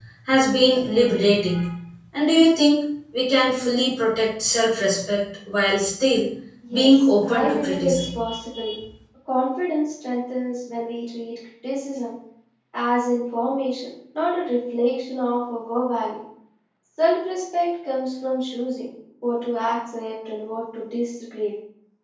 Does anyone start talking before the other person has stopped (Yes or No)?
Yes